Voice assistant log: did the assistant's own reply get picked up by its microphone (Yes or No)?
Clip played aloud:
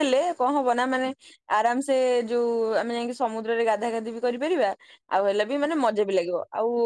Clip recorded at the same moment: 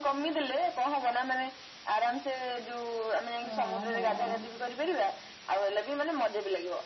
Yes